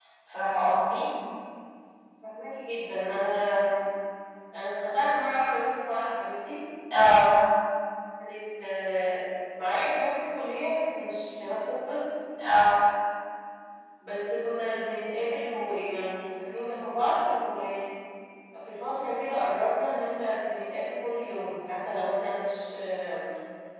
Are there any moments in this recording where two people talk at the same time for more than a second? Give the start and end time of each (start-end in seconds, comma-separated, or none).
none